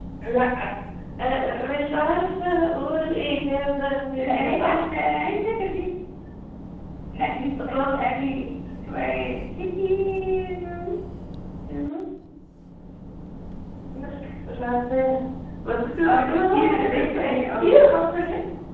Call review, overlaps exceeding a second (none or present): present